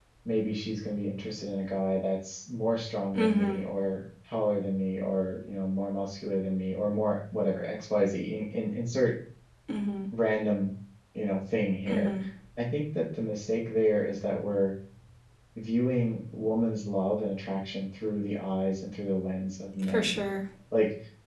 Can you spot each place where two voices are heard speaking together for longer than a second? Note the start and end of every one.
none

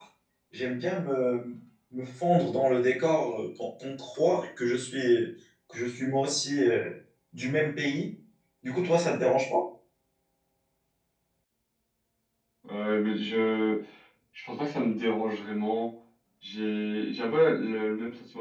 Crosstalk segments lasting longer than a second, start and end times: none

